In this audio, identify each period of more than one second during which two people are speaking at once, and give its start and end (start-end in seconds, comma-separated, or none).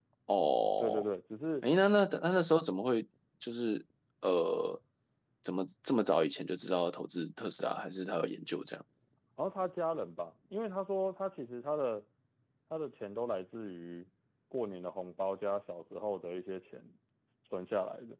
none